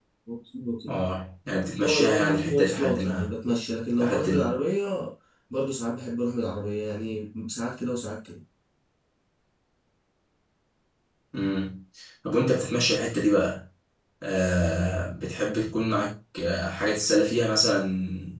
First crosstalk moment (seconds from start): 1.8 s

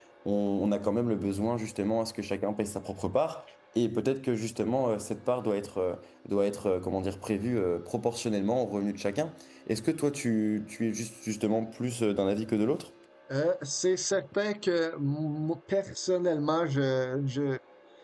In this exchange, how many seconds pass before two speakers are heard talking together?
none

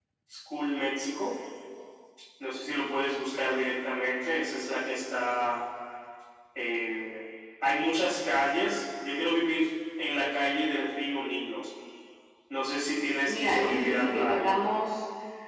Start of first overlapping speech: 13.3 s

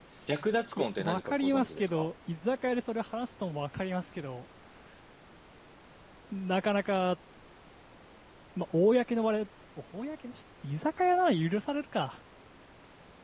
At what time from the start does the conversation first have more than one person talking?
0.8 s

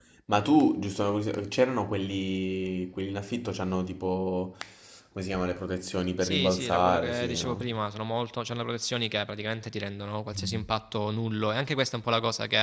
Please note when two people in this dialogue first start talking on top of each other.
6.2 s

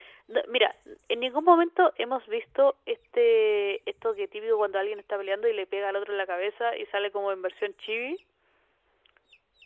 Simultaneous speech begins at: none

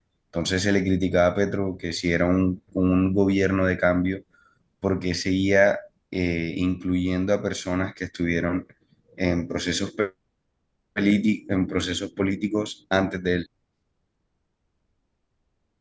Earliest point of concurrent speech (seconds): none

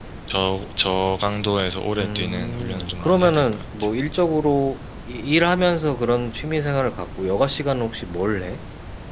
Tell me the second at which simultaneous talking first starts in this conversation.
2.0 s

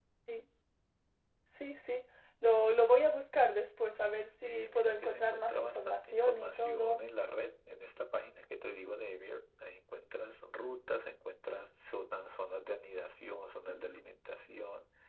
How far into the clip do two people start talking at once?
4.4 s

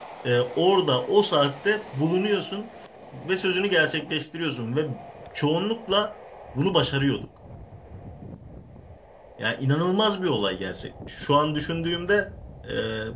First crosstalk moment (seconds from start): none

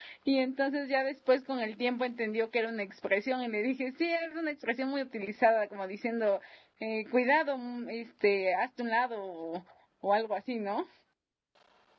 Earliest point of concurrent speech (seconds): none

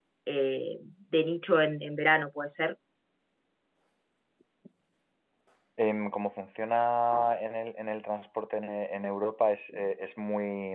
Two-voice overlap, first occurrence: none

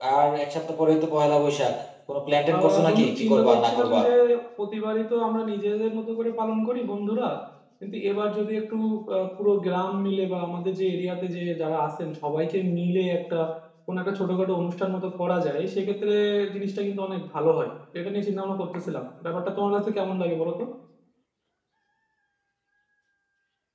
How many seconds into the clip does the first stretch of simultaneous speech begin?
2.5 s

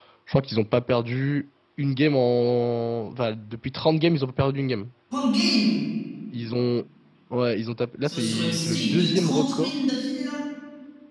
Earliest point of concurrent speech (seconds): 8.0 s

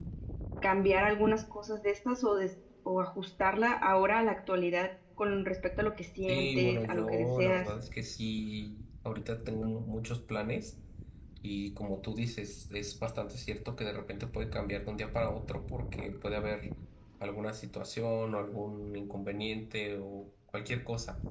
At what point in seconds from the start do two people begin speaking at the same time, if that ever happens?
6.3 s

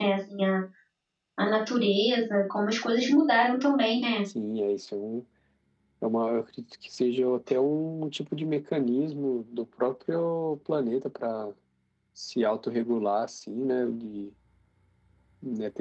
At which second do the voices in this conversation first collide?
none

